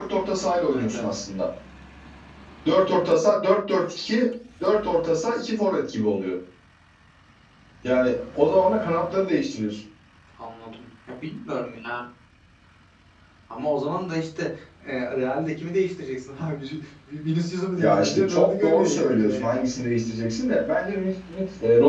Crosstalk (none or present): present